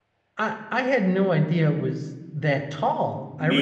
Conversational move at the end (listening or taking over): listening